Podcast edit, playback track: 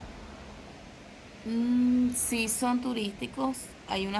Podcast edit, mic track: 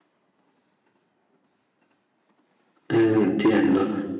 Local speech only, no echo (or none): entiendo.